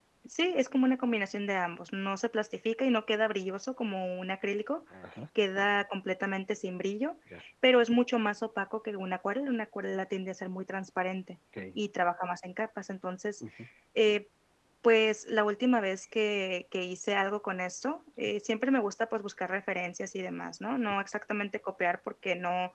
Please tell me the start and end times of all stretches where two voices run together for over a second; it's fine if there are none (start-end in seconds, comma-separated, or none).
none